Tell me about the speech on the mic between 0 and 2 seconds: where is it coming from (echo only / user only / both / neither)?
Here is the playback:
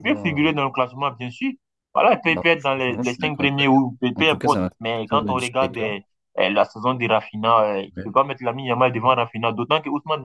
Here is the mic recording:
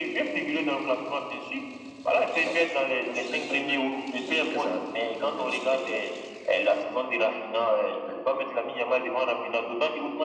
echo only